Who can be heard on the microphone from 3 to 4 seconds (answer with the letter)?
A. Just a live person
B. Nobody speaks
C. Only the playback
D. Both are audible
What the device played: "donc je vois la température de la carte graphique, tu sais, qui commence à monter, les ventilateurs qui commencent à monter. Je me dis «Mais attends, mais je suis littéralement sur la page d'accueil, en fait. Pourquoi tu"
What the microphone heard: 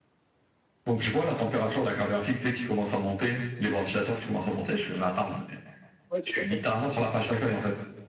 C